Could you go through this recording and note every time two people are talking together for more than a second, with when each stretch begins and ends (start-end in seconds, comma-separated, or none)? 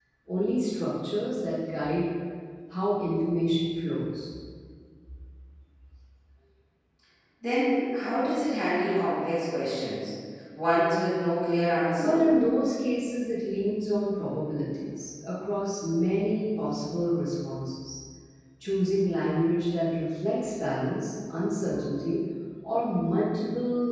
none